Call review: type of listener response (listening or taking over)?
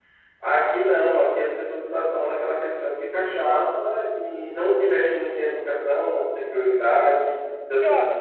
listening